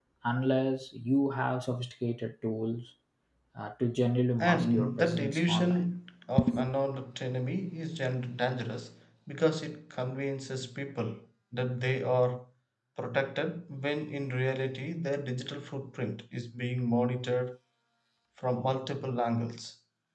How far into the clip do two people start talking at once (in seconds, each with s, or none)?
4.4 s